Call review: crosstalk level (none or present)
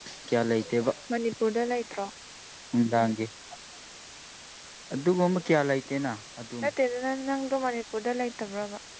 none